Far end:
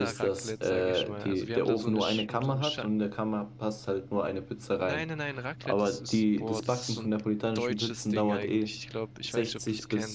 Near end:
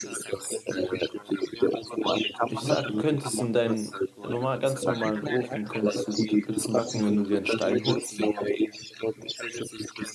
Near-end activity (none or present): present